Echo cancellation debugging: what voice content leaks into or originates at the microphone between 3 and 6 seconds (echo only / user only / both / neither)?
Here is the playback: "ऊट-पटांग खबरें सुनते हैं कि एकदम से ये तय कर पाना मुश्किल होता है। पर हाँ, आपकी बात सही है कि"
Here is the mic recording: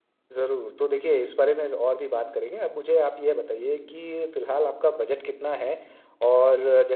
user only